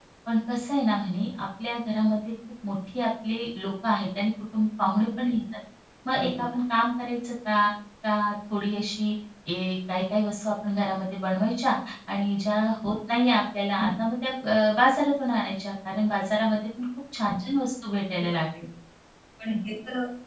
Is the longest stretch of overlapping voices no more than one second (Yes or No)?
Yes